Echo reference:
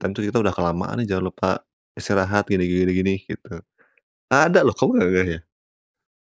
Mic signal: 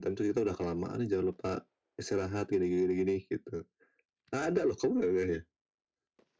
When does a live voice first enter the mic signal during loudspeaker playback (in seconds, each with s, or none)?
none